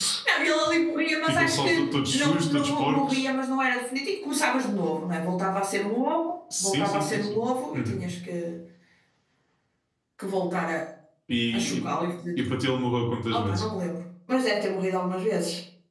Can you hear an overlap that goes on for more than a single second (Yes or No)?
Yes